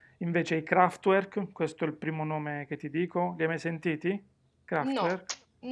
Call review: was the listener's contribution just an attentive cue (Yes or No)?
No